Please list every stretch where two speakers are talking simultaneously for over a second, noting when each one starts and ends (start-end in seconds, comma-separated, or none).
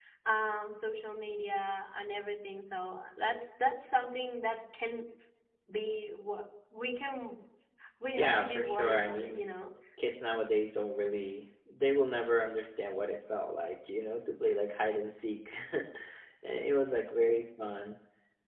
8.2-9.4